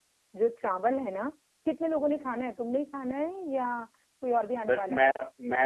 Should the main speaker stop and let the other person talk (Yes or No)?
Yes